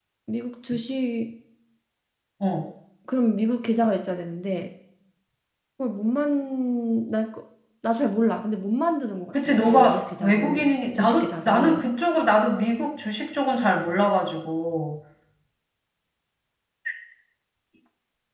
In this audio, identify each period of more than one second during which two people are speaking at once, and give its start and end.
9.3-11.9

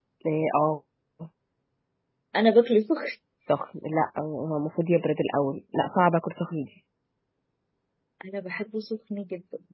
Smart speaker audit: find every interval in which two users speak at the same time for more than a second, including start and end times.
none

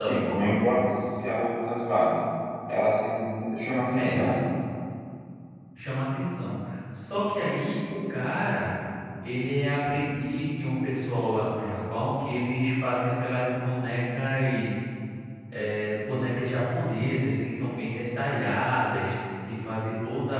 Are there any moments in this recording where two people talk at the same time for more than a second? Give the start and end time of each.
none

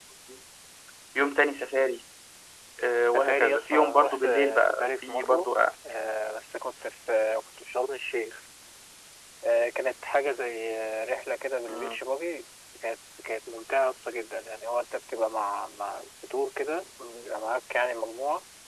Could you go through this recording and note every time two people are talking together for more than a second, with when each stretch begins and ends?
3.1-5.5

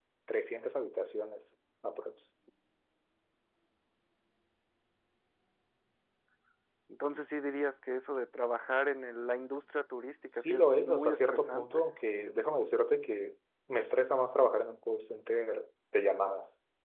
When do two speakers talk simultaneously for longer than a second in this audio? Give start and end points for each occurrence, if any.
10.4-11.8

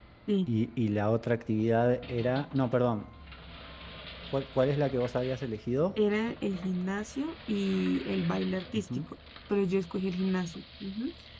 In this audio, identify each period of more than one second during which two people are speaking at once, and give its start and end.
none

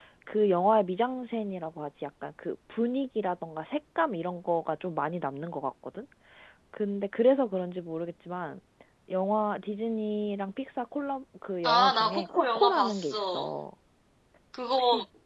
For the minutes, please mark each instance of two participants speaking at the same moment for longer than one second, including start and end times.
11.6-13.5

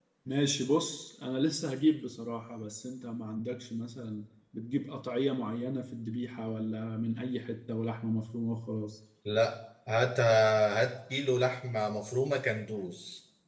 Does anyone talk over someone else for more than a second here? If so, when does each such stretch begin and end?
none

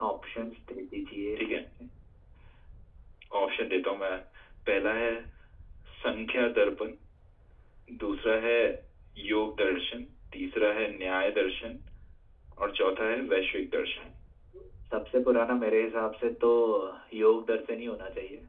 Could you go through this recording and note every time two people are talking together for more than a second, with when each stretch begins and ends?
none

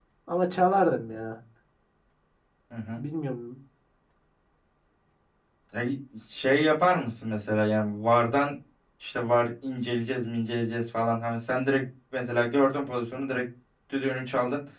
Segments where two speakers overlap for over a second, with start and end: none

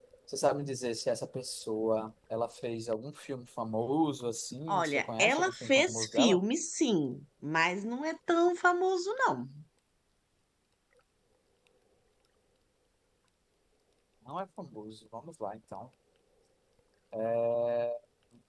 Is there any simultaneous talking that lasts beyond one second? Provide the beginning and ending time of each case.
4.7-6.4

